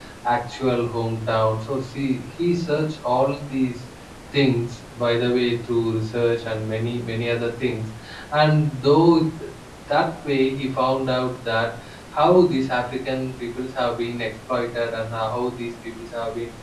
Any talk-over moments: No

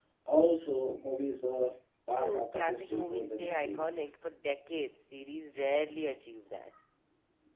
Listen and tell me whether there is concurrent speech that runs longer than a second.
Yes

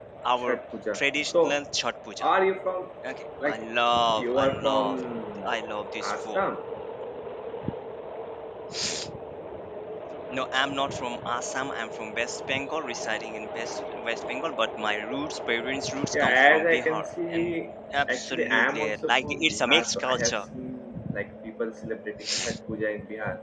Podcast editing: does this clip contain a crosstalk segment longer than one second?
Yes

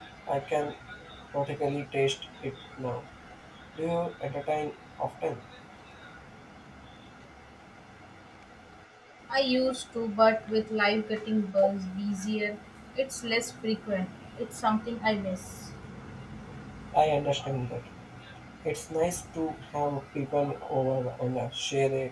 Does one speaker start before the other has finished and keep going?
No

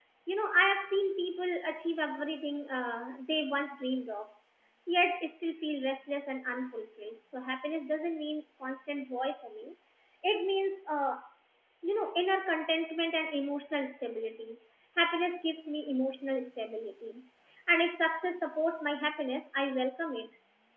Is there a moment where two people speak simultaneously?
No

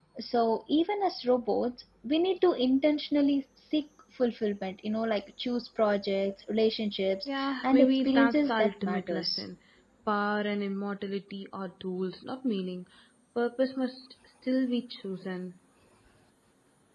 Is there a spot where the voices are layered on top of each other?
Yes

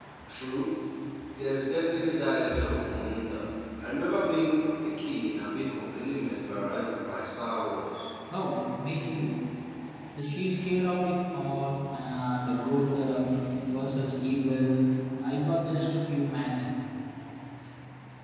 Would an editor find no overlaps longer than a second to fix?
Yes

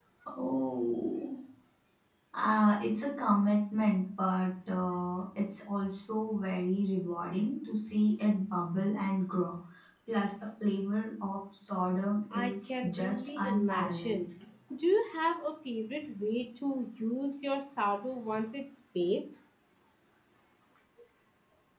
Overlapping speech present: Yes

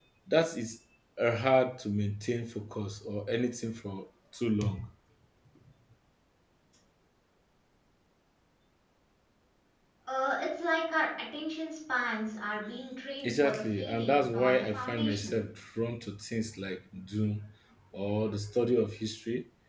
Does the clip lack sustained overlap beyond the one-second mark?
No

